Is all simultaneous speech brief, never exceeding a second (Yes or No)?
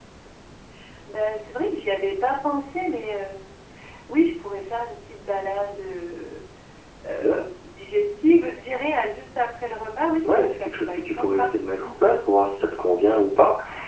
No